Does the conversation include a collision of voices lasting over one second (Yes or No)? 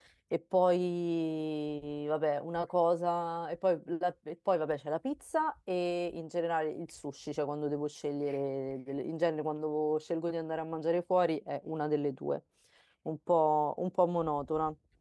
No